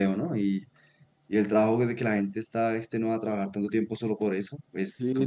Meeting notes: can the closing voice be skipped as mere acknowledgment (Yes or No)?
No